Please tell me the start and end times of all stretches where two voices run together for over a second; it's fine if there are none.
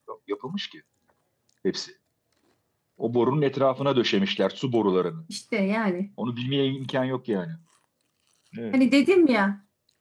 none

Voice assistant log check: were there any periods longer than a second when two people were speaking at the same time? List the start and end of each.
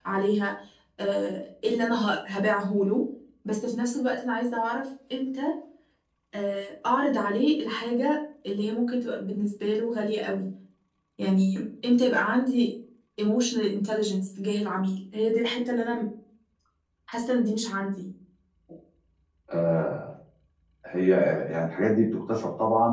none

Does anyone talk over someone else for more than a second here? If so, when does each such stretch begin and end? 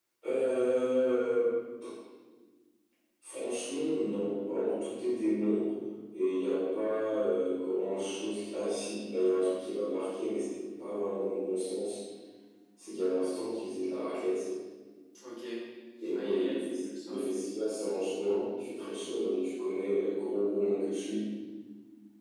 16.1-17.4

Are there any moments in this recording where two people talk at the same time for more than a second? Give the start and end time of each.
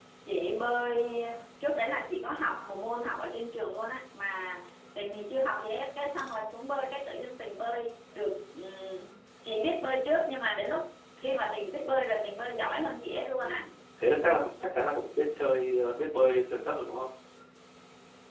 none

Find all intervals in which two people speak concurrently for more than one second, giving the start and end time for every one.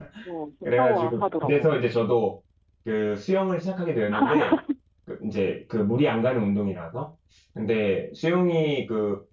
0.8-2.0

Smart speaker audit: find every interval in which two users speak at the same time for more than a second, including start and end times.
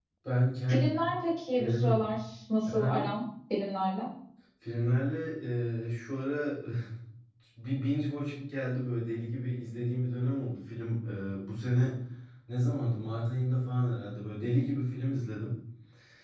none

